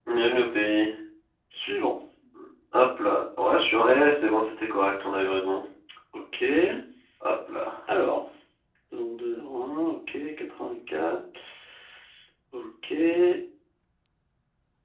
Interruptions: none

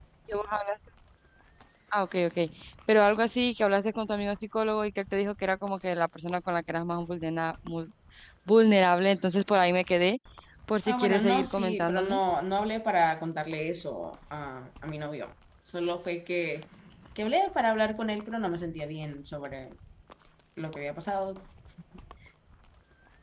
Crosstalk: present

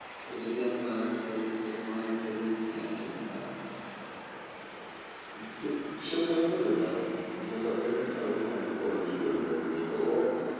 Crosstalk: none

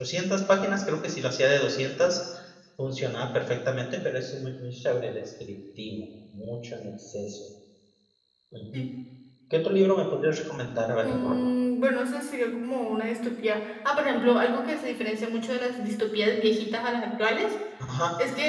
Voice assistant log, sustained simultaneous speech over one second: none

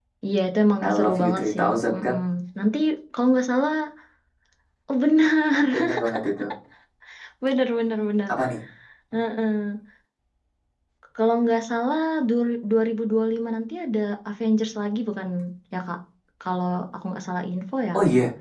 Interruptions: present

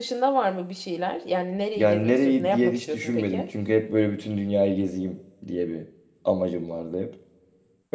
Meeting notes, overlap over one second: present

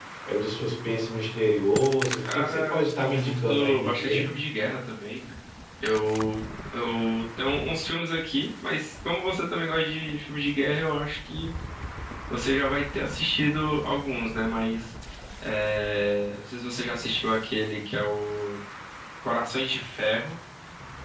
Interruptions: present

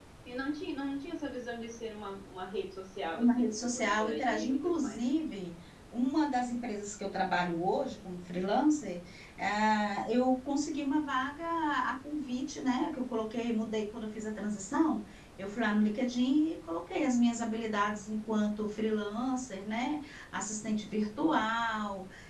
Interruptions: present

